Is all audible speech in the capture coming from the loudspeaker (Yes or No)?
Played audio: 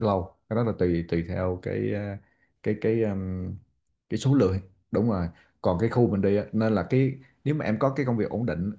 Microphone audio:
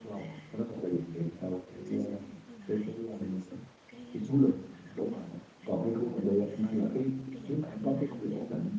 No